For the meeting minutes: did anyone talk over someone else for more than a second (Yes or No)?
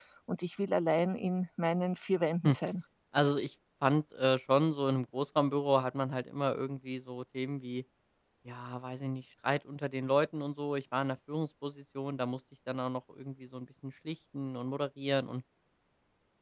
No